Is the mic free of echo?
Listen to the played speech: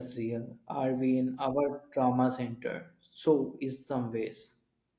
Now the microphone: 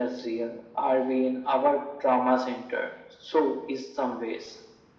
No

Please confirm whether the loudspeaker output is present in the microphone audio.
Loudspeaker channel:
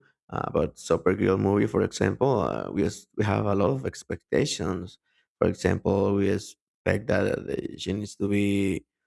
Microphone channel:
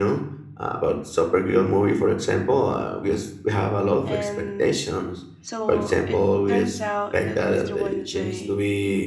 Yes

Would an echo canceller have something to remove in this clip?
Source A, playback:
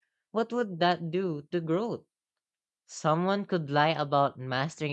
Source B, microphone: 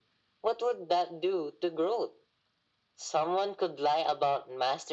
Yes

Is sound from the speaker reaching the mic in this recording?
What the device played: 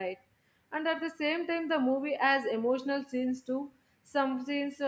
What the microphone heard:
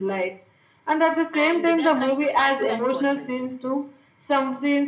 Yes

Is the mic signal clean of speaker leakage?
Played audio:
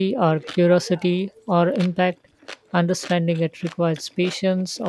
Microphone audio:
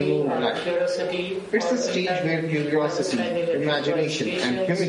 No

